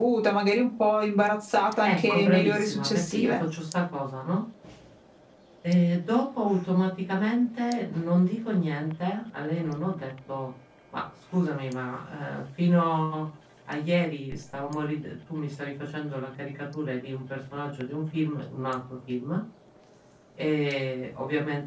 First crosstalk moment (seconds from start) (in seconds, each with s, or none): 1.6 s